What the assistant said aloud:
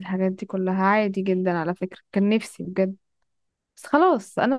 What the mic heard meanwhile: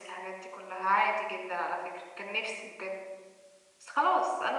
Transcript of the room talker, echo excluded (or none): none